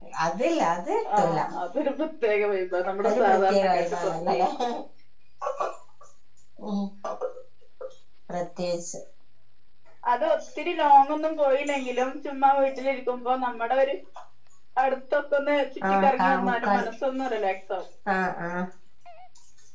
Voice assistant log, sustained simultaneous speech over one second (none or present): present